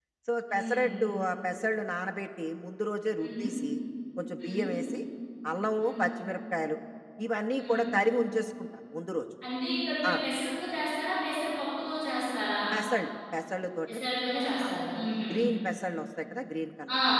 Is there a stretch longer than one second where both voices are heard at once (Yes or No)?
No